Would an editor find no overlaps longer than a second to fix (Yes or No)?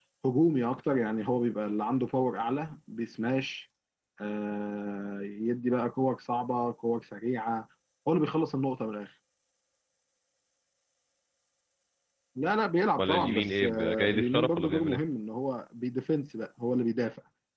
No